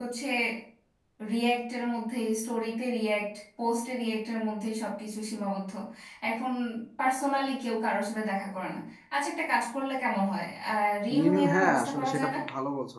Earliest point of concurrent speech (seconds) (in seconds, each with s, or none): 11.1 s